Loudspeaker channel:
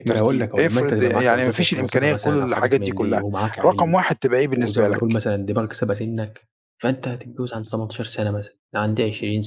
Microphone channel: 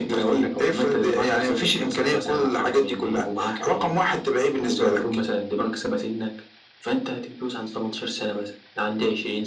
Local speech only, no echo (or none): none